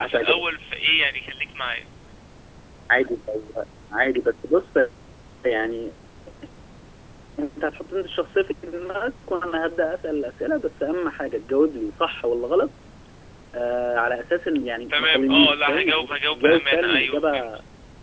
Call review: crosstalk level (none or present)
present